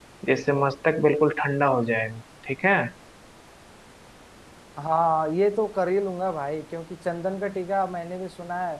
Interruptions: none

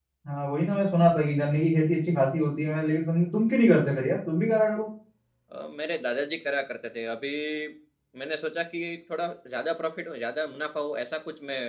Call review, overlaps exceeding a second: none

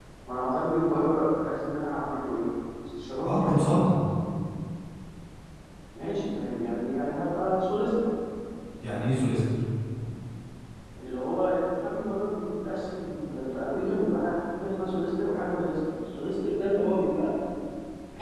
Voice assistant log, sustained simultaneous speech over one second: none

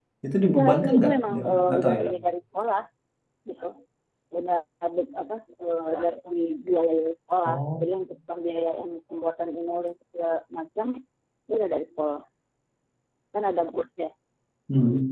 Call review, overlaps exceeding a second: present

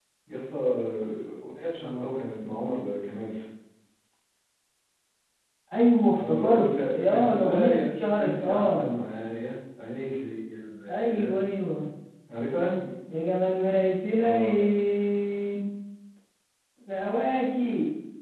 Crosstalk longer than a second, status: present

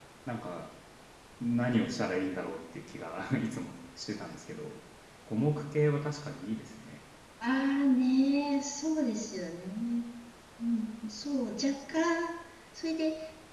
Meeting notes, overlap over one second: none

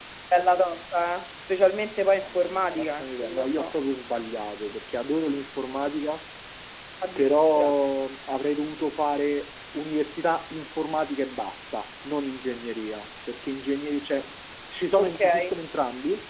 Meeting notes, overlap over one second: present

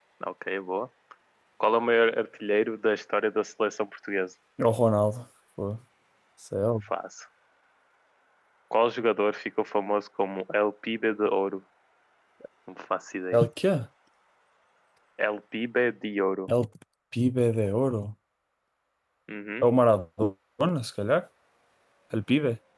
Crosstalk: none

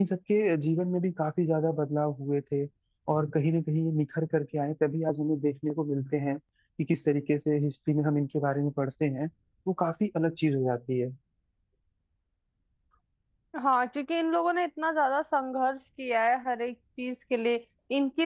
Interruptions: none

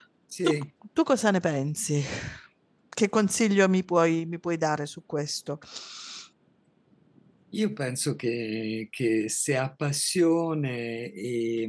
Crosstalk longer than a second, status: none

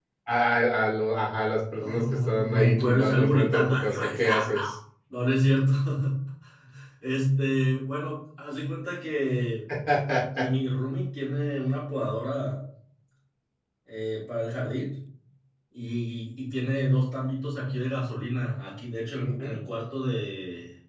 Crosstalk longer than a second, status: present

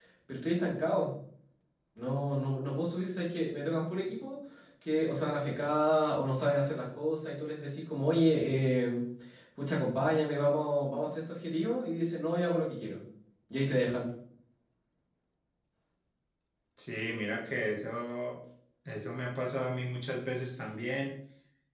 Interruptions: none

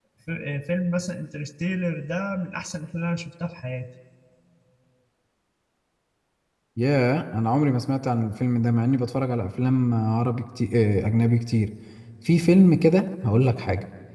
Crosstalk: none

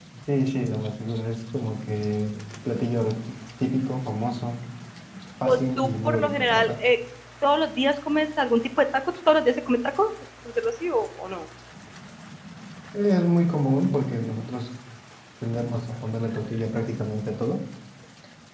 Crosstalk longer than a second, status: present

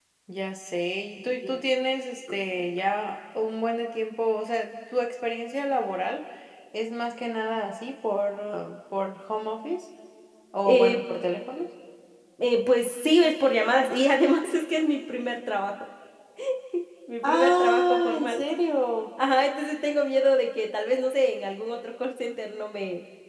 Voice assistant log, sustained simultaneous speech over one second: present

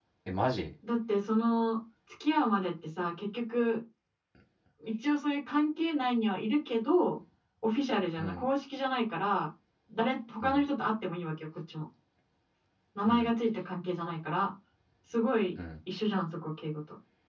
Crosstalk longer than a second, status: none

